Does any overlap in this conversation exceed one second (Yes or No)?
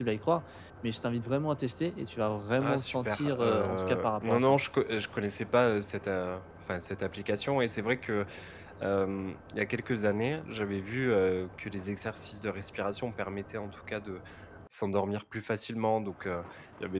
Yes